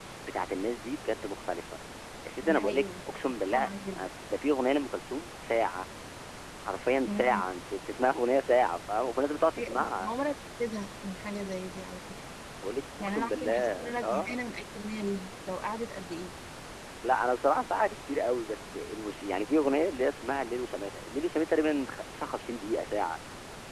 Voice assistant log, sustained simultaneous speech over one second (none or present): present